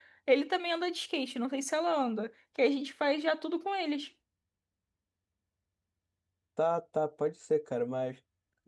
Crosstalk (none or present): none